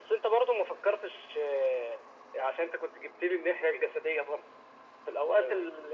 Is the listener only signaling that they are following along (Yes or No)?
Yes